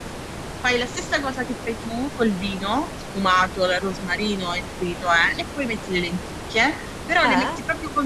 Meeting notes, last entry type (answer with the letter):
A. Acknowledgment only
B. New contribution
A